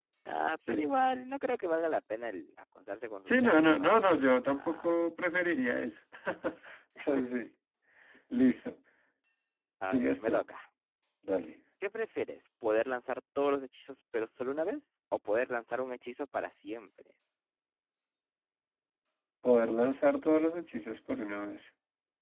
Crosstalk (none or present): present